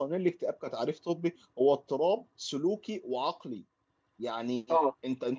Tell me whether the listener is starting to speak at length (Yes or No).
No